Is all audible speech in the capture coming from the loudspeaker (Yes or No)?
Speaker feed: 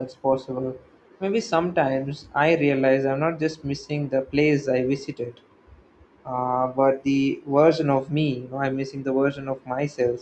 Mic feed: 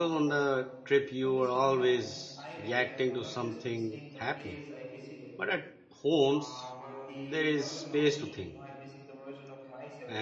No